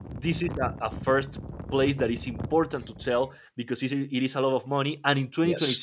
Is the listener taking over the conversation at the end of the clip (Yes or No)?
No